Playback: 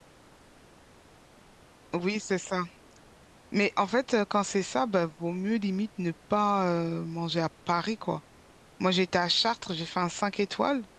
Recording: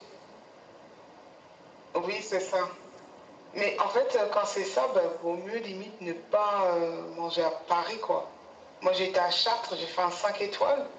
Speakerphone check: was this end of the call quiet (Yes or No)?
Yes